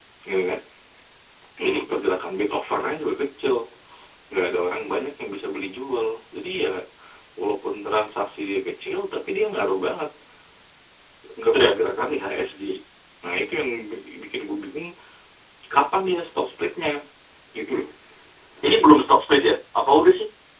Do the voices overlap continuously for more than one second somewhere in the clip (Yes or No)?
No